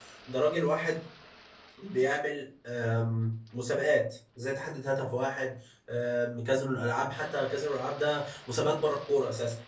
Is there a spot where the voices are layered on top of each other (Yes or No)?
No